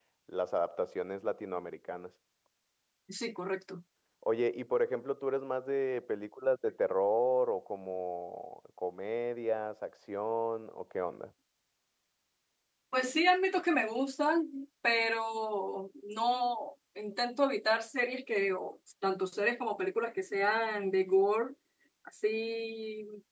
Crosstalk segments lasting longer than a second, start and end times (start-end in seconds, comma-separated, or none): none